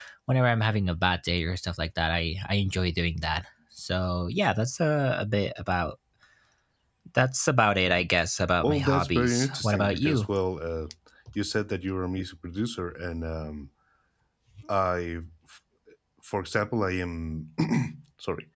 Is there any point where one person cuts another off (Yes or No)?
Yes